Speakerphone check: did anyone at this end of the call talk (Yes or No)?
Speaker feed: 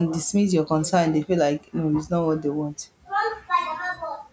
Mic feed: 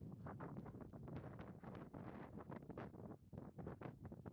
No